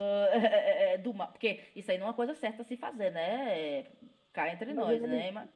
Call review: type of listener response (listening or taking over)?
taking over